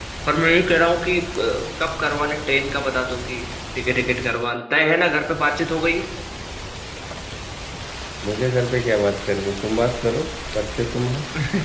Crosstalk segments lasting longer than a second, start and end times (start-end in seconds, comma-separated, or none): none